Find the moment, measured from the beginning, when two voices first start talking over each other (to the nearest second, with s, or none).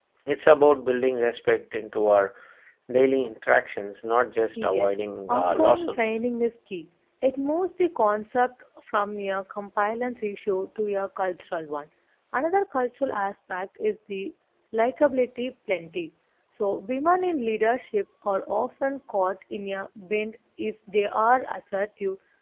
5 s